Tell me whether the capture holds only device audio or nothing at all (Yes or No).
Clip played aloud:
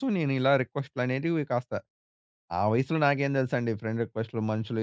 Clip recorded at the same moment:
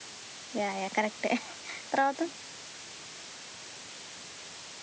No